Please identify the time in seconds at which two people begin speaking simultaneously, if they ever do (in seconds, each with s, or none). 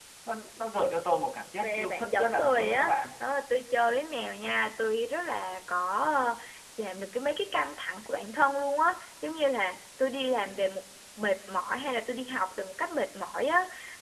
1.6 s